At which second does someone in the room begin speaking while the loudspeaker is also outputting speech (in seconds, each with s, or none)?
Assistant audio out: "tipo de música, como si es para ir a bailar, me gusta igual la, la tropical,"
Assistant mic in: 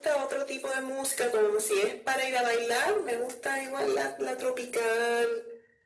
none